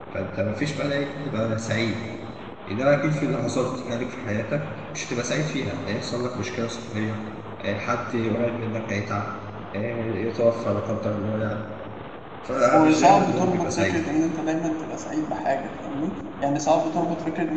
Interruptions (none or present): present